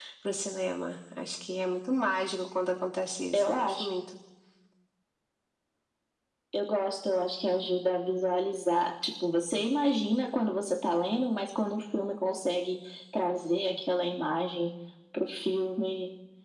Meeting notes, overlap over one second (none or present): none